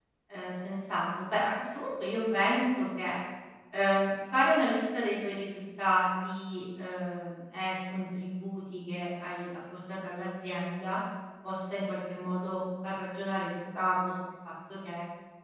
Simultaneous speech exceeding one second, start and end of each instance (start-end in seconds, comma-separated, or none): none